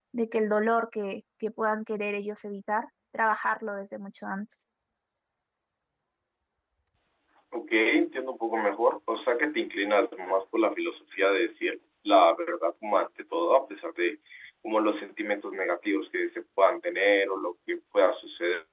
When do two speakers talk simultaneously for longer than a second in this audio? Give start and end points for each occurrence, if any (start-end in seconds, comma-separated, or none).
none